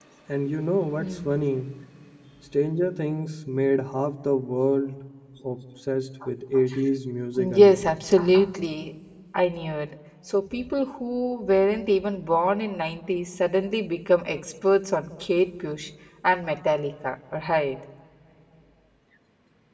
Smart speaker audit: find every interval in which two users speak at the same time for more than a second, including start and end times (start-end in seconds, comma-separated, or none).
none